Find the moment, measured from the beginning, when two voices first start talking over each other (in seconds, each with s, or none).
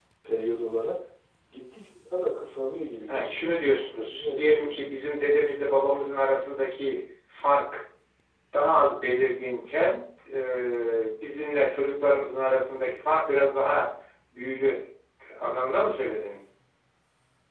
3.1 s